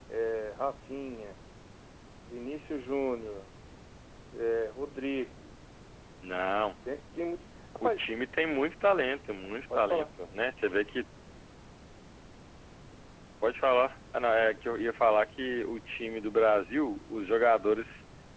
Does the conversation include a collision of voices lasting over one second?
No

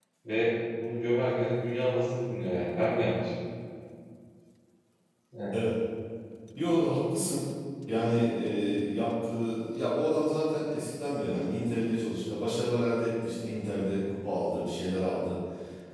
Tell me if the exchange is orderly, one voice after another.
Yes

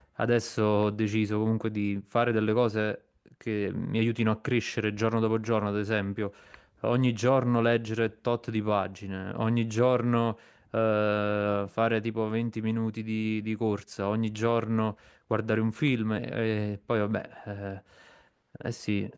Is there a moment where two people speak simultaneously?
No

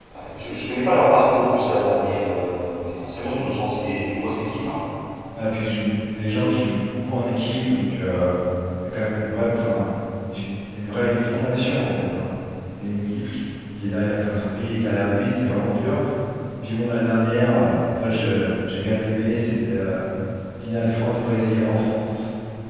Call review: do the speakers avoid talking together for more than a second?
Yes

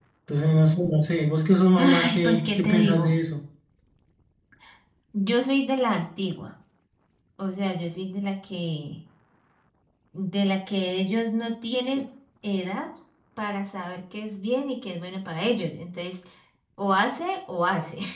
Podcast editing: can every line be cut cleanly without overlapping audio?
No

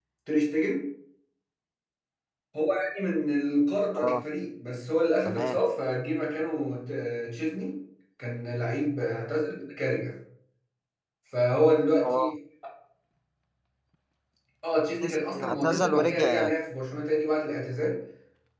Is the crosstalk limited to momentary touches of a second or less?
No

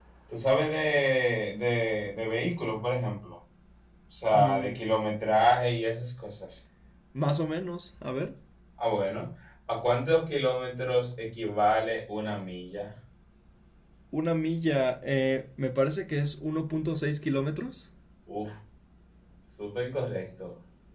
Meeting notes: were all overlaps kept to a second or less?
Yes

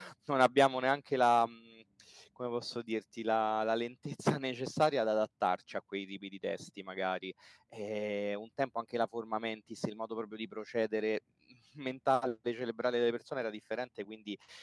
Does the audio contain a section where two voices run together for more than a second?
No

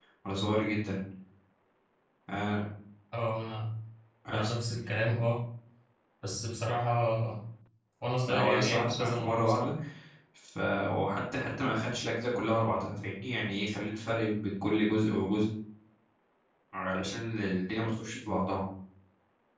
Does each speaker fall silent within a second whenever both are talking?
No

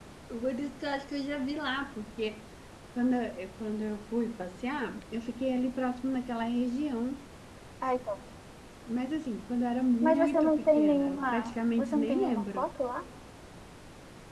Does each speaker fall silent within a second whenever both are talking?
No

